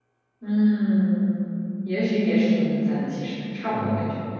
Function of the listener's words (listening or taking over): taking over